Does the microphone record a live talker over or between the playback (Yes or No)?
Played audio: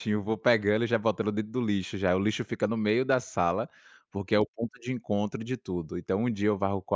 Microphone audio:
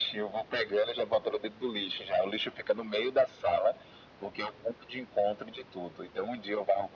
No